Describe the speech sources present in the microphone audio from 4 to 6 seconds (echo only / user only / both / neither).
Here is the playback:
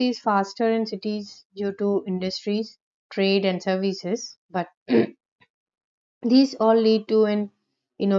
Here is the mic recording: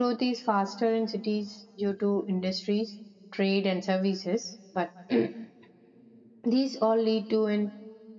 echo only